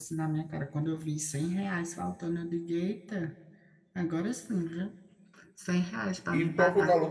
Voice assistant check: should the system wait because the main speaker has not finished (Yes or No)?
No